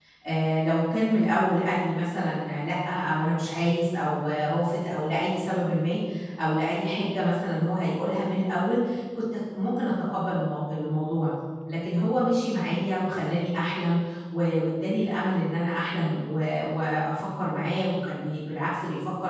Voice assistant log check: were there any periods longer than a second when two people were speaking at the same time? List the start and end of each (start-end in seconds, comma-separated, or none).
none